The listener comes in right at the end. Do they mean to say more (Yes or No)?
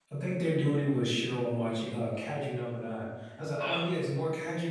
No